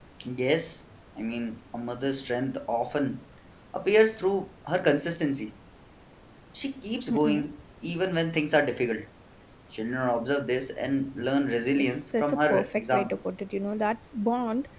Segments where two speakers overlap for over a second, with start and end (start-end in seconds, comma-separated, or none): 11.7-13.2